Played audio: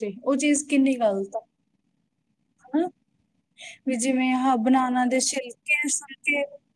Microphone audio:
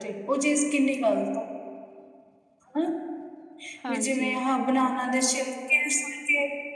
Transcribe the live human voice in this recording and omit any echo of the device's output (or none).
ਹਾਂਜੀ